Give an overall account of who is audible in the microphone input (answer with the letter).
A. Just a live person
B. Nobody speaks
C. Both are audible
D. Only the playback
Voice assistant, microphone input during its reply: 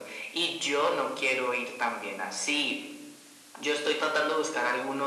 D